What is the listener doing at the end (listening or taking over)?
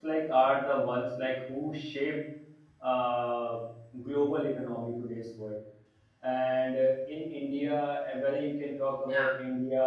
listening